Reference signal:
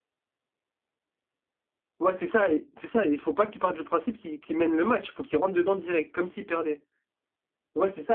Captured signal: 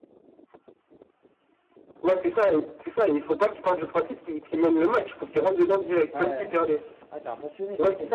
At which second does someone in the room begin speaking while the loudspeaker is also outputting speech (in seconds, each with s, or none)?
6.1 s